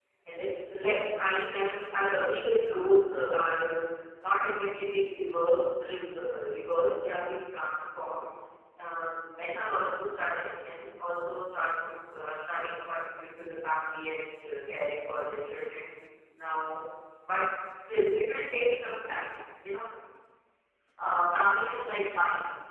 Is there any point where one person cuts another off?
No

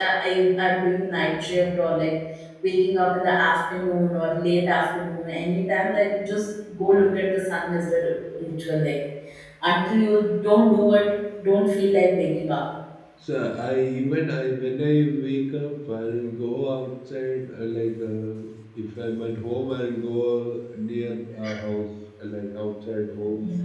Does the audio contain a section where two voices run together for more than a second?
No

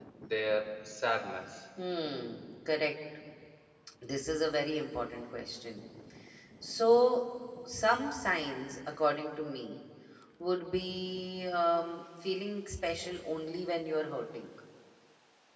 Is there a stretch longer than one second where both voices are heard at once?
No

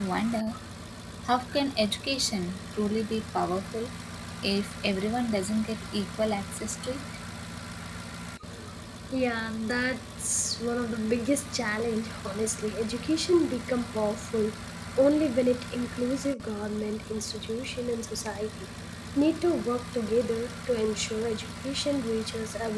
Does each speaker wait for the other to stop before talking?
Yes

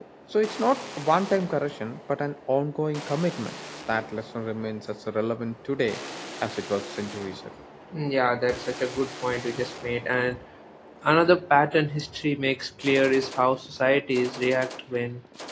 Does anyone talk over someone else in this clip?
No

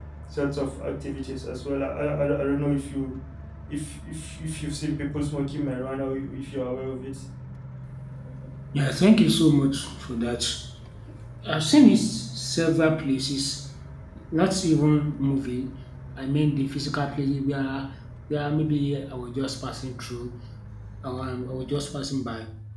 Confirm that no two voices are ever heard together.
Yes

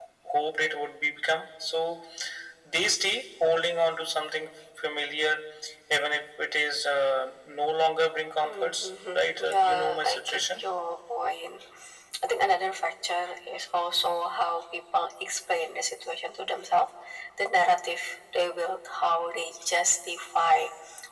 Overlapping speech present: Yes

